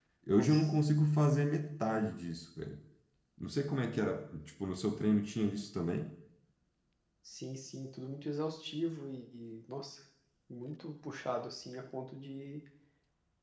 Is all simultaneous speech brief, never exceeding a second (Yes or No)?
Yes